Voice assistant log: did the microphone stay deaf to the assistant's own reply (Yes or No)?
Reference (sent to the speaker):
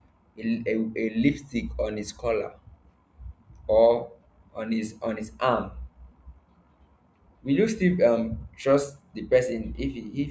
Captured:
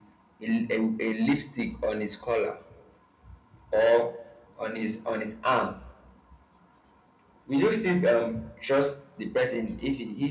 No